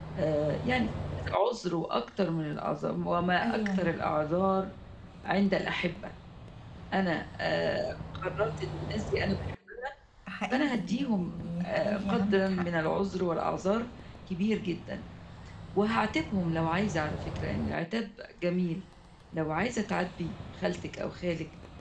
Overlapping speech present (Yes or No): Yes